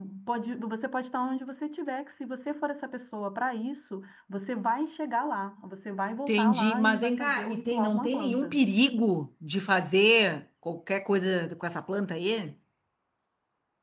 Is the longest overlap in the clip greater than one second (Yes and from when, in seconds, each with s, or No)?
Yes, from 6.3 s